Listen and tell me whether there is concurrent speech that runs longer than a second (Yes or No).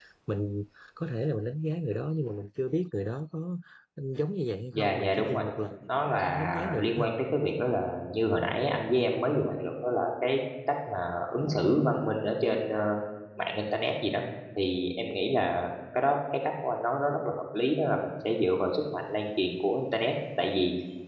Yes